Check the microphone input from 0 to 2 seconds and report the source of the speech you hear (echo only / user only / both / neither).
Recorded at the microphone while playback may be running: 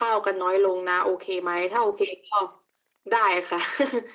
echo only